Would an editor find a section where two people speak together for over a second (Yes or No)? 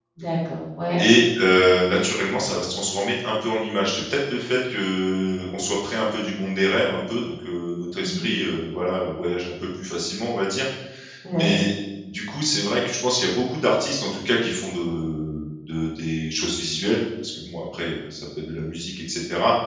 No